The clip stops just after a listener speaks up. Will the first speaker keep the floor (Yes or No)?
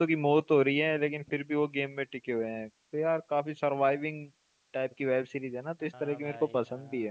No